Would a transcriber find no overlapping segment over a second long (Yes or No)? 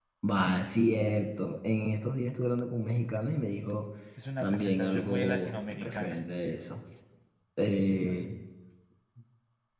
No